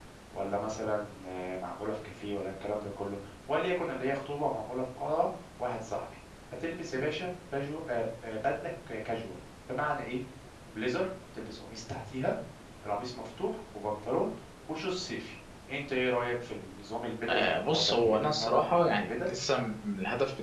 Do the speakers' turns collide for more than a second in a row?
Yes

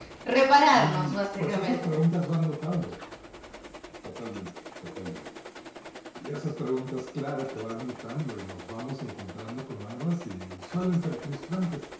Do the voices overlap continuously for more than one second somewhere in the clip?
Yes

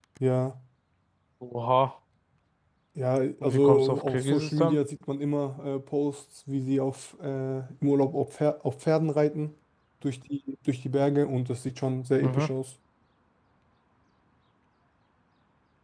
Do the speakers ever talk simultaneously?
Yes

